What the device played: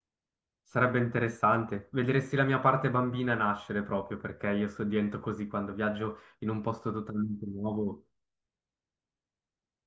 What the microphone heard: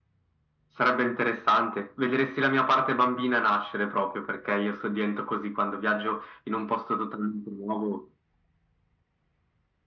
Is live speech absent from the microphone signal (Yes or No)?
Yes